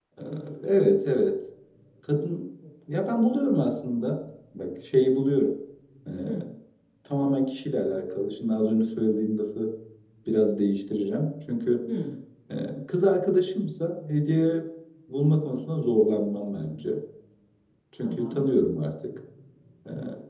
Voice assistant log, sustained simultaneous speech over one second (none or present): none